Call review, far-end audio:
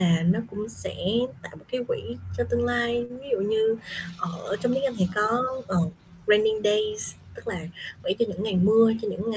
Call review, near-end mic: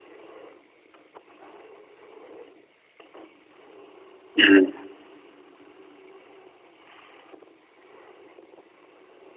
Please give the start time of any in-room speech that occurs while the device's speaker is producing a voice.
4.4 s

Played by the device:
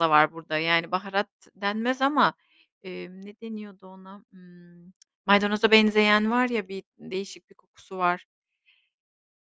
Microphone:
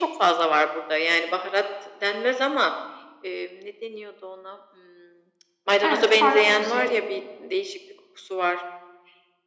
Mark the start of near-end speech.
5.8 s

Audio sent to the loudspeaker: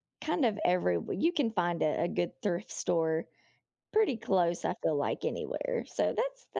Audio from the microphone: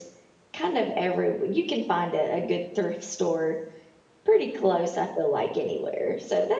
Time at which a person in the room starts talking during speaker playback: none

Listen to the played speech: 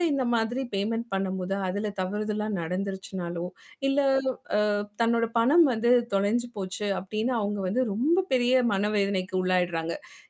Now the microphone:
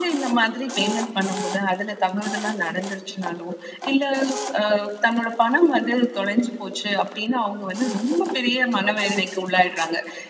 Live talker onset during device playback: none

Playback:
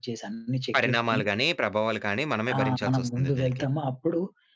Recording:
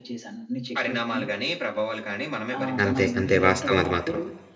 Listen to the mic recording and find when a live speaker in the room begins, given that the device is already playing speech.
2.8 s

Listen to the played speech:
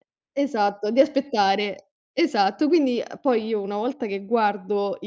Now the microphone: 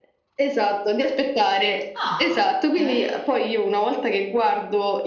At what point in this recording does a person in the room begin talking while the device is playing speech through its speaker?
1.9 s

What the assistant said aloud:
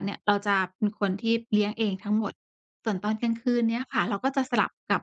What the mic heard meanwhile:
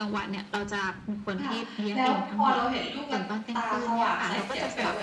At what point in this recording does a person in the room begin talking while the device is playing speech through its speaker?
1.4 s

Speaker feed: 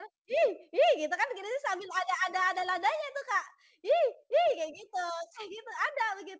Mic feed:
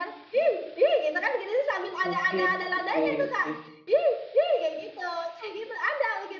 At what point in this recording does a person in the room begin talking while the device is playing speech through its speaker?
2.0 s

